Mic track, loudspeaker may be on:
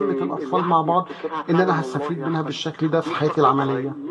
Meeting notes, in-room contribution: present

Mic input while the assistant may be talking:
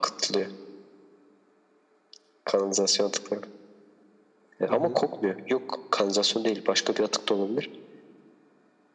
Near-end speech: present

